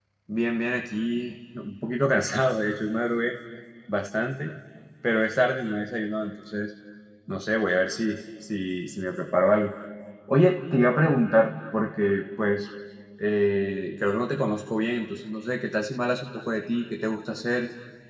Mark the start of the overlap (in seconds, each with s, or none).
none